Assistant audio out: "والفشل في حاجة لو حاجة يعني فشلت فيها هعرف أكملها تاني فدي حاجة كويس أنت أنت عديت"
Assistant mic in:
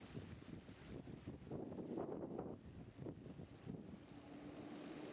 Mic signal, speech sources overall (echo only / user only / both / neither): neither